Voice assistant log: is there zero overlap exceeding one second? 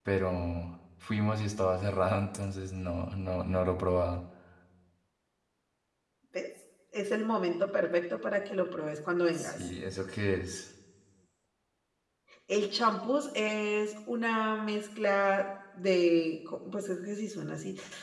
Yes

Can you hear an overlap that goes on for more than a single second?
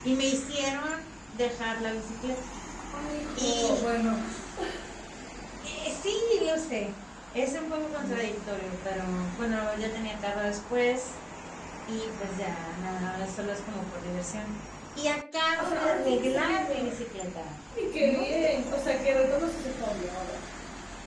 Yes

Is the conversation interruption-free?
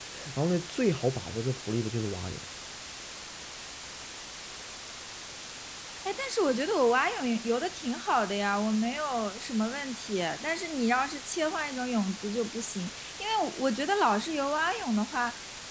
Yes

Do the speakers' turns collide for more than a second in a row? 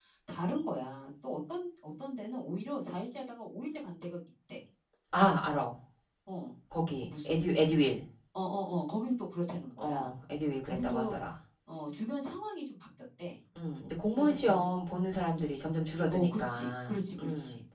Yes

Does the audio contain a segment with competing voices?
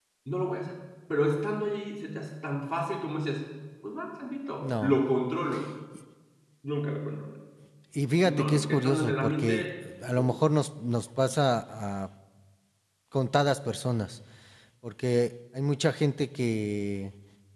Yes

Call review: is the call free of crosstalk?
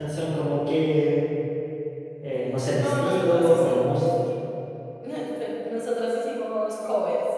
No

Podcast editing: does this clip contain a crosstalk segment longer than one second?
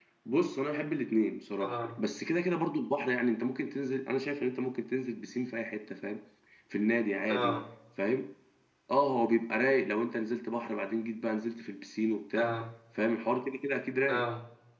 No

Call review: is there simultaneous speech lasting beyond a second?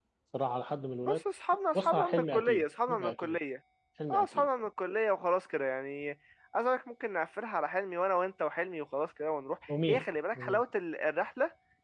Yes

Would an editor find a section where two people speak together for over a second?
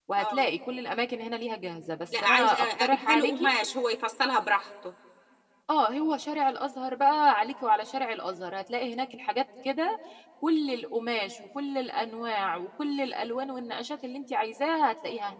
Yes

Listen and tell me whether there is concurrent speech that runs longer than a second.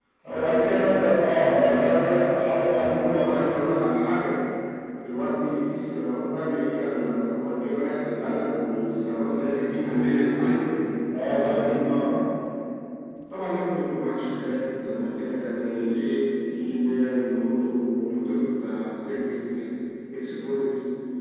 Yes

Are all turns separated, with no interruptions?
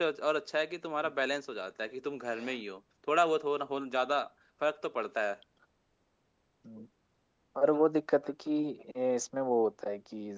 Yes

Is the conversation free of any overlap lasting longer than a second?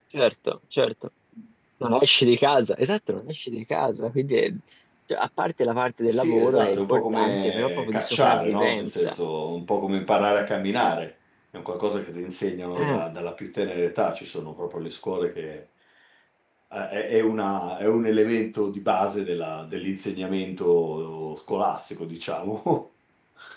No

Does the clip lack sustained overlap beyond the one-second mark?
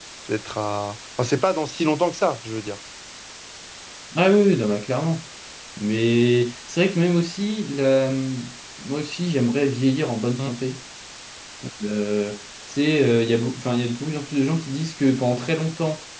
Yes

